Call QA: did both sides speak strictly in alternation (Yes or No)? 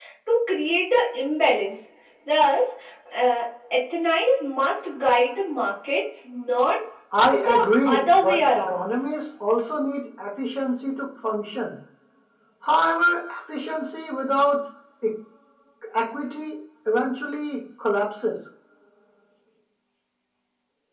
No